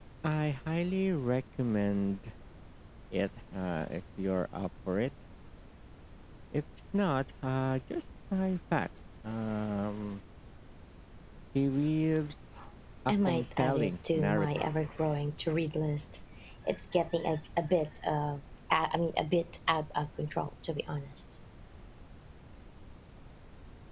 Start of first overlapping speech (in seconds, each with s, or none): 13.1 s